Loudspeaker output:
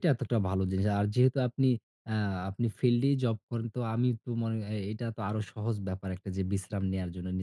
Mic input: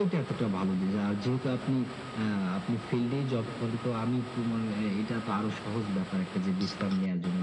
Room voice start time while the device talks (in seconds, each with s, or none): none